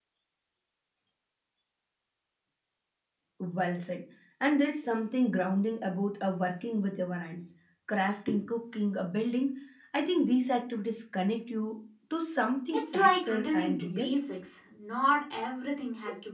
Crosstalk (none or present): present